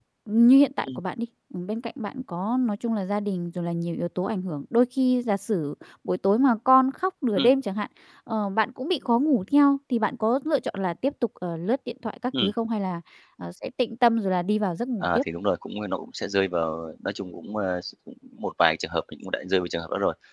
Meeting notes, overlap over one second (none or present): none